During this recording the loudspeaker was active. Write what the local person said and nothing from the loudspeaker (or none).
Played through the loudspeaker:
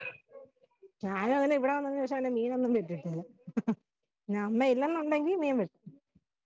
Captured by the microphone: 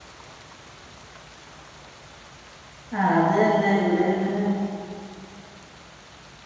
ആഹ് അത് തന്നെ ഇവിടെ അങ്ങനെ